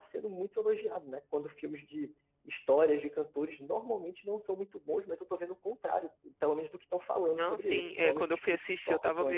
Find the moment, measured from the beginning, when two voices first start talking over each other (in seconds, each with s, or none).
7.3 s